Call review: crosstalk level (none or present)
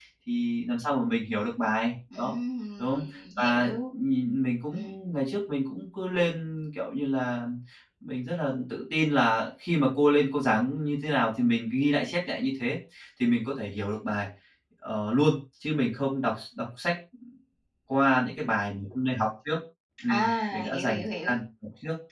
present